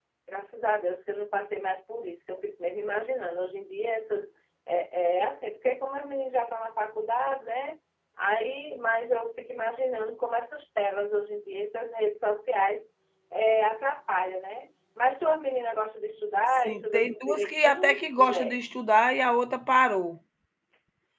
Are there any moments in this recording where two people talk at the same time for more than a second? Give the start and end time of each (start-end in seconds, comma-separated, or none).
16.6-18.6